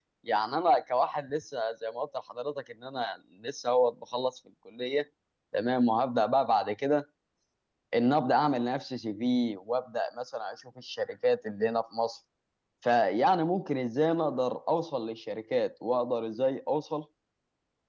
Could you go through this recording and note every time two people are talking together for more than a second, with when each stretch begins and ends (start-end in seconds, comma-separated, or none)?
none